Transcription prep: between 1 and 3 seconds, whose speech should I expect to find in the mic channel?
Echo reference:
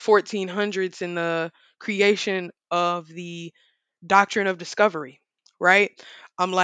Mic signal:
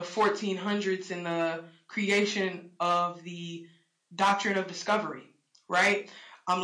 echo only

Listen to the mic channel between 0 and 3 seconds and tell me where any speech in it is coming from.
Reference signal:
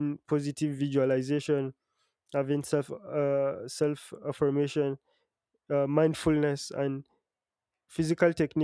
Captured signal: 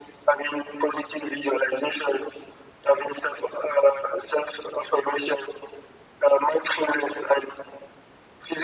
echo only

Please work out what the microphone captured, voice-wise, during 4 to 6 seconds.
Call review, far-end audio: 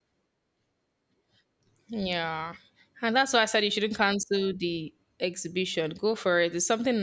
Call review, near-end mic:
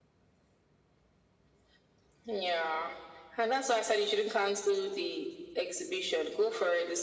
echo only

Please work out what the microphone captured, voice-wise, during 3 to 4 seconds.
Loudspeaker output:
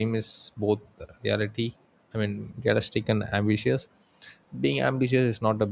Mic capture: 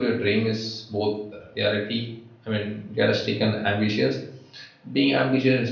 echo only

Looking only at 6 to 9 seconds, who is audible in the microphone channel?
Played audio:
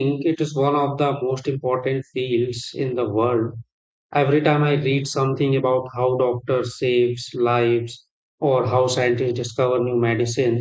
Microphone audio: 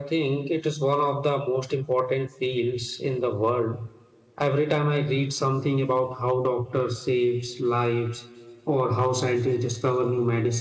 echo only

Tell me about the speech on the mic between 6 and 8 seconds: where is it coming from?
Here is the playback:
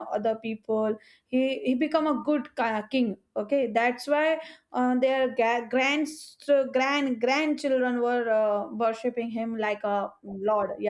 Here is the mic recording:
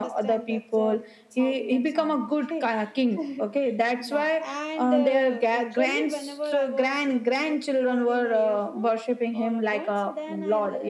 both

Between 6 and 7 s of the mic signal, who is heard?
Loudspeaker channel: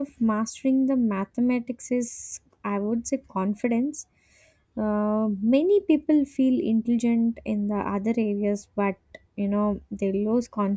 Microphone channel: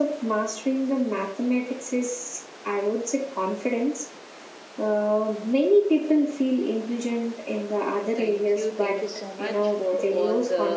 echo only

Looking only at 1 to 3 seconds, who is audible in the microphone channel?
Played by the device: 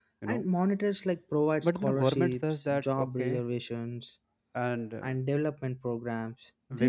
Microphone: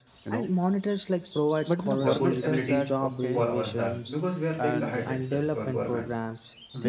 both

